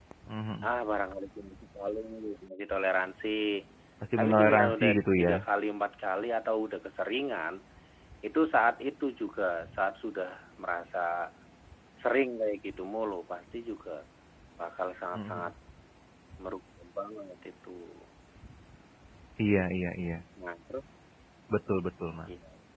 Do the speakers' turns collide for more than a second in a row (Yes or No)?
Yes